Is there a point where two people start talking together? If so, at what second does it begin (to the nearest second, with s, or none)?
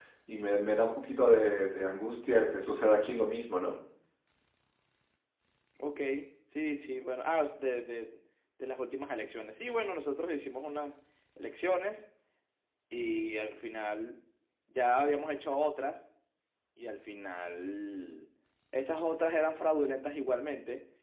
none